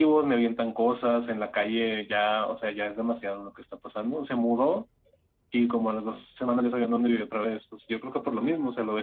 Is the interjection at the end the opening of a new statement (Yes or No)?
No